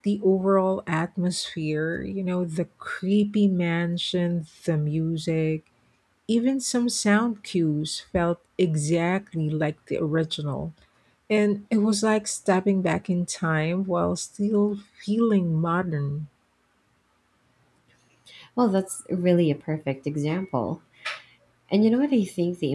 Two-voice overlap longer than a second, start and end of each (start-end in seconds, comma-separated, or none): none